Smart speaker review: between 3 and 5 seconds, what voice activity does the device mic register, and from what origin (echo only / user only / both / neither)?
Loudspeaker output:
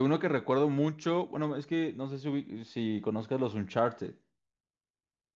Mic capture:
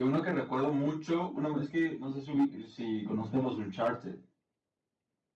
echo only